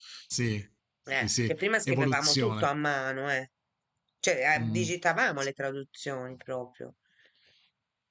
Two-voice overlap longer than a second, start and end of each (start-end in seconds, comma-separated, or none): 1.2-2.7